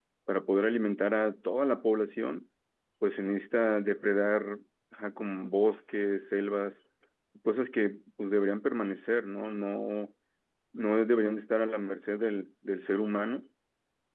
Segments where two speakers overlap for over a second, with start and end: none

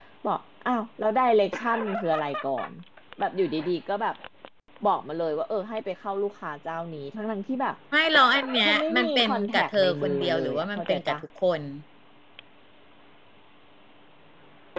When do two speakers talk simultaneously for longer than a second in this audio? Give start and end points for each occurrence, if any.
8.7-11.2

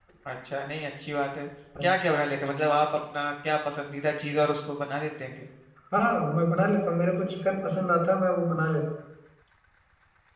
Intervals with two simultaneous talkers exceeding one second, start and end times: none

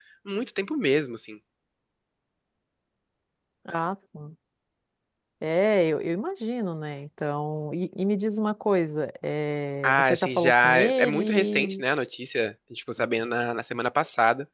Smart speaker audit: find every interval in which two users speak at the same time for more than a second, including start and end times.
9.8-11.8

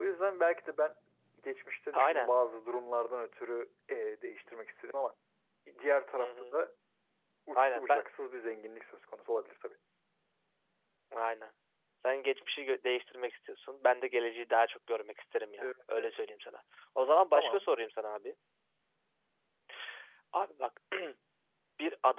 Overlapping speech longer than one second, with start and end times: none

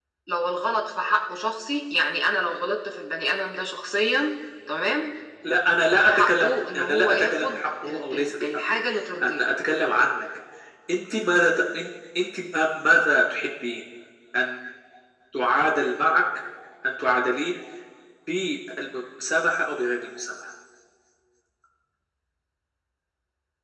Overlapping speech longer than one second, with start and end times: 6.0-8.8

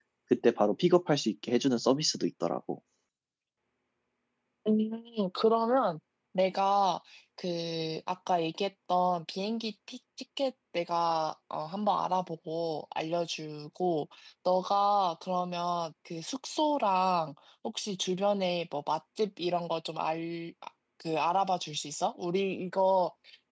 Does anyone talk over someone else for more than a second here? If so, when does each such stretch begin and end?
none

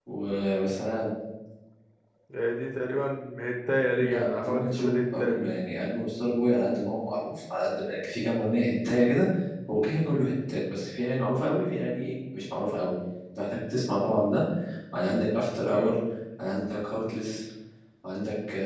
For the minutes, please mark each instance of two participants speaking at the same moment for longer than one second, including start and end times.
4.0-5.3

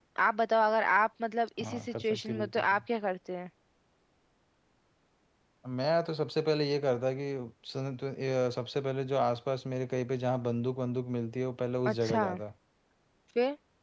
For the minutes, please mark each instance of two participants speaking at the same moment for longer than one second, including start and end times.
1.6-2.8

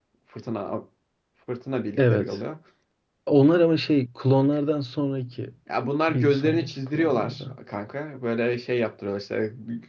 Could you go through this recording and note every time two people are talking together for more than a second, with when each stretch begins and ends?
6.1-7.6

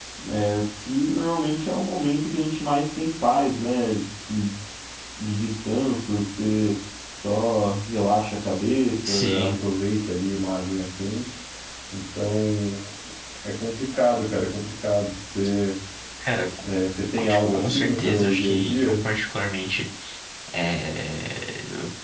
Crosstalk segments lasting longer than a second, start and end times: 17.2-18.9

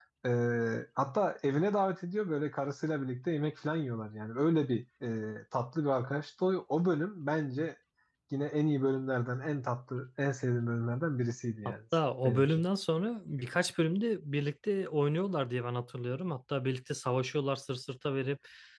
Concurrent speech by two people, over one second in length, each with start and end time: none

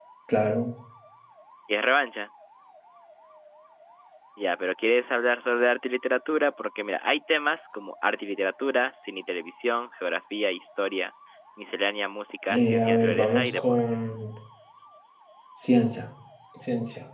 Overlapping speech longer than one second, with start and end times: 12.5-13.8

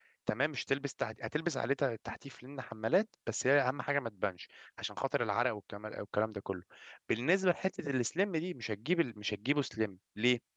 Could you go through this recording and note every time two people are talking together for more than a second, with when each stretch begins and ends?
none

